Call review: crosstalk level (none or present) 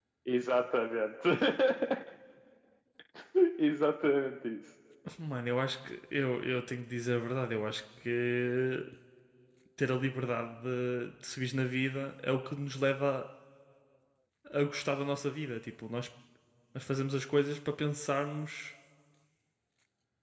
none